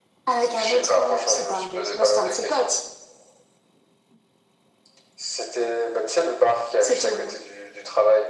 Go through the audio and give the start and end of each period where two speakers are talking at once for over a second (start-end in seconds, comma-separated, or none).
0.6-2.7